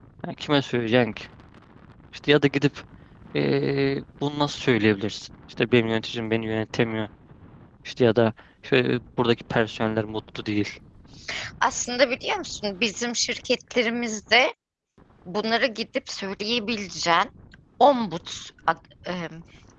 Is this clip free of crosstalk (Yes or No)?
Yes